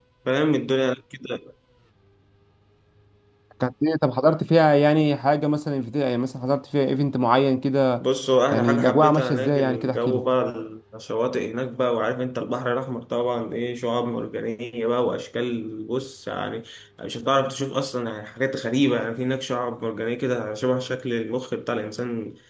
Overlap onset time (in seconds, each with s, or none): 8.5 s